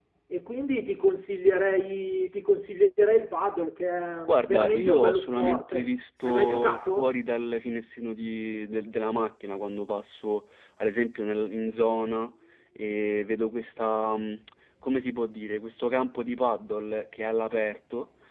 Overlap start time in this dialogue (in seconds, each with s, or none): 4.3 s